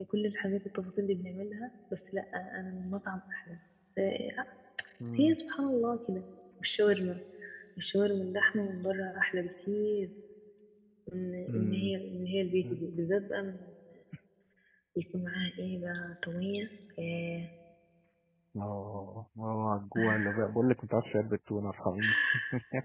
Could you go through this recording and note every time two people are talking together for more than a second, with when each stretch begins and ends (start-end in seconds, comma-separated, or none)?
none